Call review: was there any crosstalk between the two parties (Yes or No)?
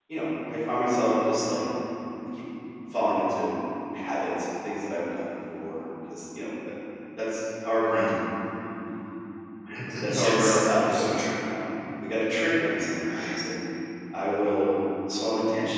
Yes